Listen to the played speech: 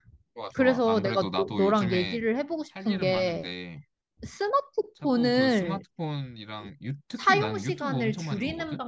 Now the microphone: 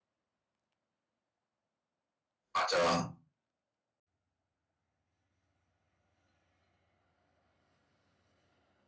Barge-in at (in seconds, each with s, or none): 2.5 s